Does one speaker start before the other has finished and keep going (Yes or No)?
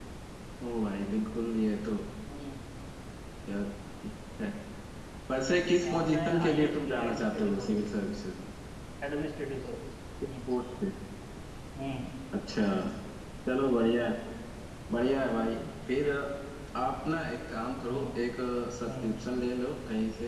Yes